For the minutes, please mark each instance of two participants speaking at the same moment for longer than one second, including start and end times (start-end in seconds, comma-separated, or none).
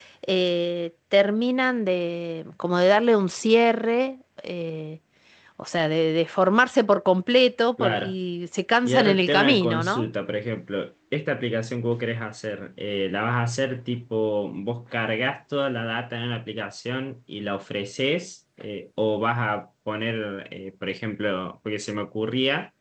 8.8-10.1